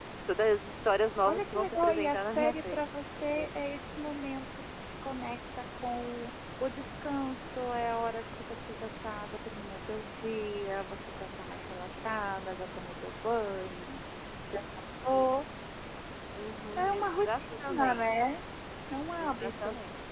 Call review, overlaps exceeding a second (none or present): present